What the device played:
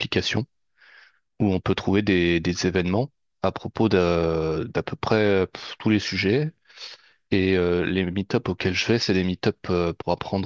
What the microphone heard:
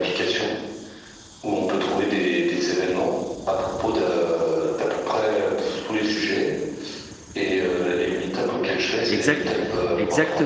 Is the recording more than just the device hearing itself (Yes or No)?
Yes